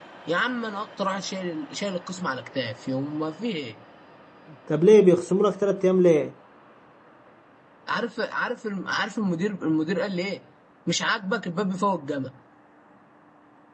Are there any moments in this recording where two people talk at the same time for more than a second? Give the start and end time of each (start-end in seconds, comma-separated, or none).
none